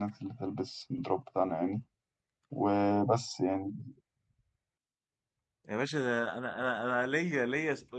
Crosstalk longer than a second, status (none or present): none